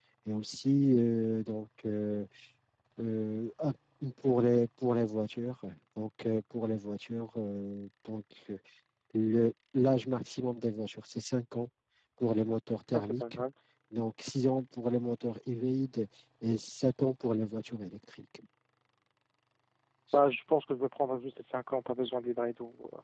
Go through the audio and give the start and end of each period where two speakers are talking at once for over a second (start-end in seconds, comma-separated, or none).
none